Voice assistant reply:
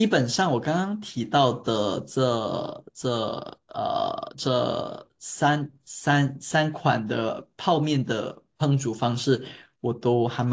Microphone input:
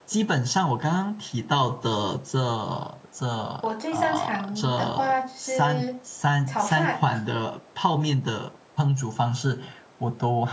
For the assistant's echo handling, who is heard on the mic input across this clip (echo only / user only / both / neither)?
both